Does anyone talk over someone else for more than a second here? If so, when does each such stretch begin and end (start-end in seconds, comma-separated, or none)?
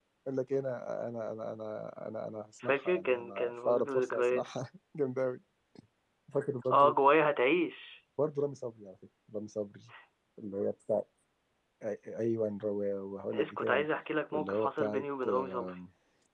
2.6-4.4, 14.3-15.7